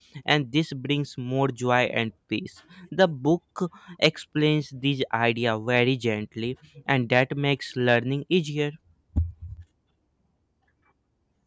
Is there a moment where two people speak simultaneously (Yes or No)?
No